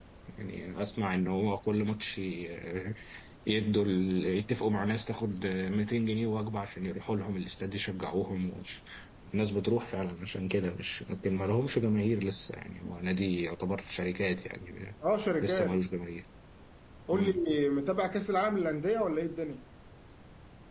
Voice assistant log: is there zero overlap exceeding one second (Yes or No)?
Yes